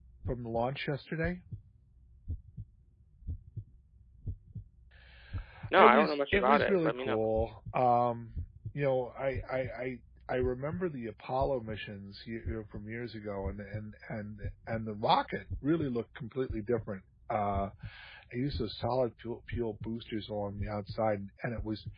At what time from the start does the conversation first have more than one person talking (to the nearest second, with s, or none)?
6 s